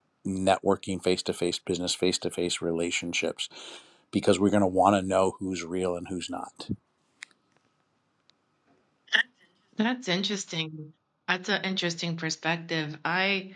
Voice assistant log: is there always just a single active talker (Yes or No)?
Yes